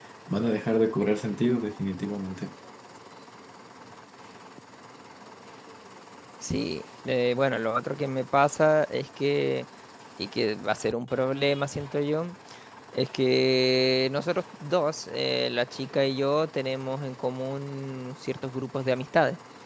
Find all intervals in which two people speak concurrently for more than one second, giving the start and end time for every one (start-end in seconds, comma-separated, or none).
none